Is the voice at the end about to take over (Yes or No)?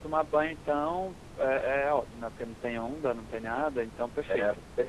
Yes